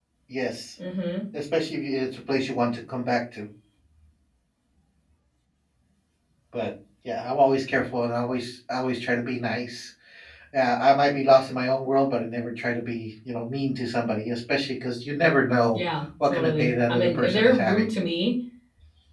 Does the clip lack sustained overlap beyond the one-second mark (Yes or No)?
No